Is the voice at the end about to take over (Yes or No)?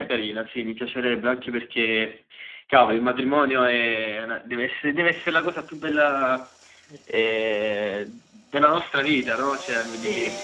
Yes